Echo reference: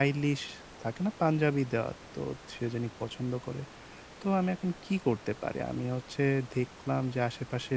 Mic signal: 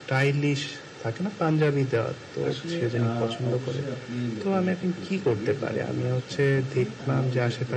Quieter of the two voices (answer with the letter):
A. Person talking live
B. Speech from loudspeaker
A